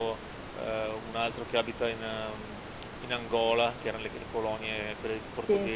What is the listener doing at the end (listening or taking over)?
listening